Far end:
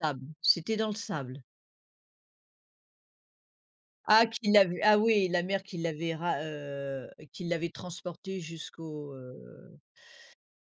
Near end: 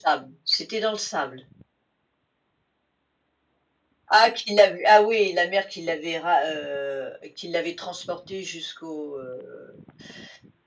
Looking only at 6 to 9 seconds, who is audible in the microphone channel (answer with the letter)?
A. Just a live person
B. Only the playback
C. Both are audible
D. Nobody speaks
B